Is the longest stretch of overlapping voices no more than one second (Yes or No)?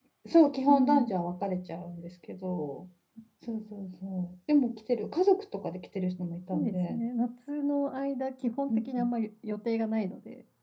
Yes